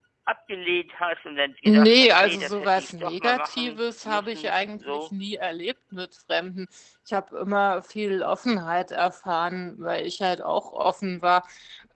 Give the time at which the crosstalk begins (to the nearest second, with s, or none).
2 s